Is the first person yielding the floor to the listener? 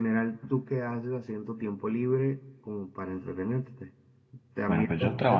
Yes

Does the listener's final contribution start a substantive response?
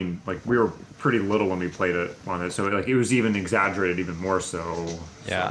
Yes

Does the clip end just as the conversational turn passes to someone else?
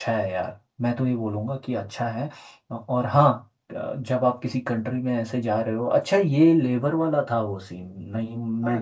Yes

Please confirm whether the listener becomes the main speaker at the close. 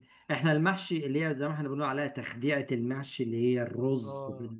No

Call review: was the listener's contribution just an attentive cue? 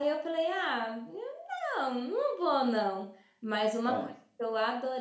Yes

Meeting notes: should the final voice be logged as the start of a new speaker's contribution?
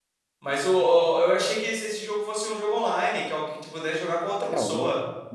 Yes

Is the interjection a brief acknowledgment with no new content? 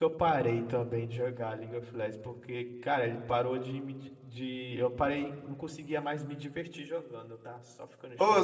No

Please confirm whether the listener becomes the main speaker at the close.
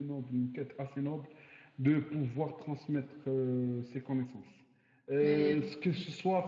No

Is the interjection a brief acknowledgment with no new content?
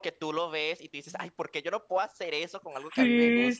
No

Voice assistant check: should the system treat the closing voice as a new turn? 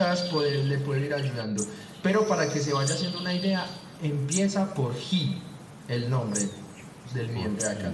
Yes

